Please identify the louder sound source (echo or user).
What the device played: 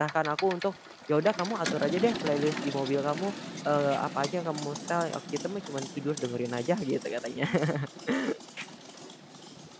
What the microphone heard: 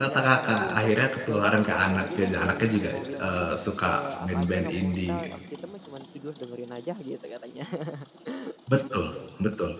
user